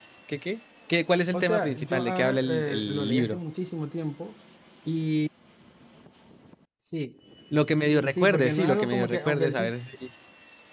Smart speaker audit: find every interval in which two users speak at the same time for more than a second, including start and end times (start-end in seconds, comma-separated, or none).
1.3-3.4, 8.1-9.7